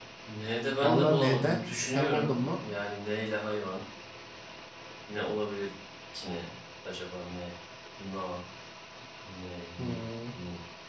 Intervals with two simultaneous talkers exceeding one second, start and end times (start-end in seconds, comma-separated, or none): 0.8-2.4